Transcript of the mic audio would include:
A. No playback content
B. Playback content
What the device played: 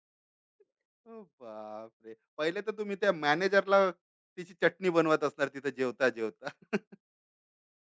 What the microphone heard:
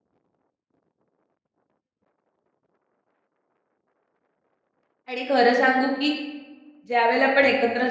A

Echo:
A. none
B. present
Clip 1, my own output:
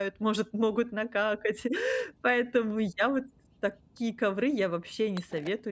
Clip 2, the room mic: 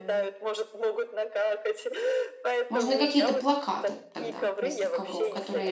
B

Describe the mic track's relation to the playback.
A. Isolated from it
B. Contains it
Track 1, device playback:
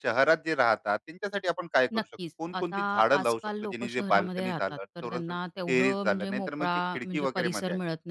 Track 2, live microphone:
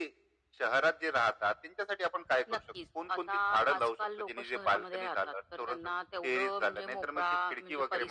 B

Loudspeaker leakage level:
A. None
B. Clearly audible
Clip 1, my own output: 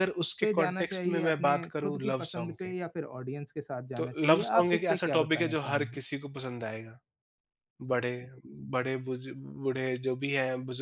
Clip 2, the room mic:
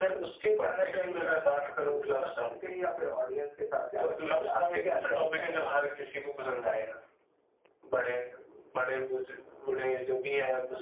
B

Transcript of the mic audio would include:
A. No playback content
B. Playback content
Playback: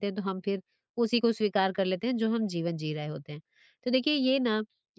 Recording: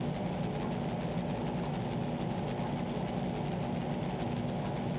A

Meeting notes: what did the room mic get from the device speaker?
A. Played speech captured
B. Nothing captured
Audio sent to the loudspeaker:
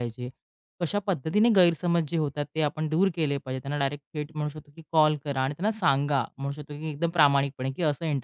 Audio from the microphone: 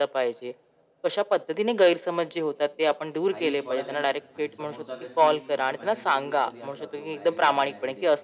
A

